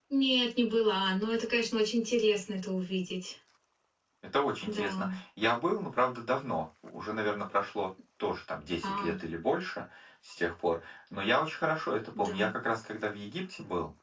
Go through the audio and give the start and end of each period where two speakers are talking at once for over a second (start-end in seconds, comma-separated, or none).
none